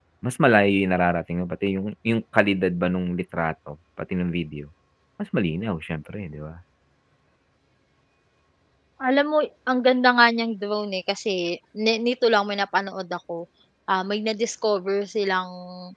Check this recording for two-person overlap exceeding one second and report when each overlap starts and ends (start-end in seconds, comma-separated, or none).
none